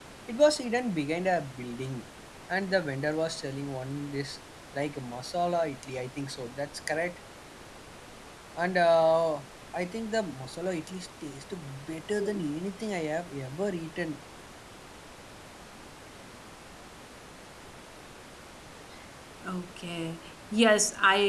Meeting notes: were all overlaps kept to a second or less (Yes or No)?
Yes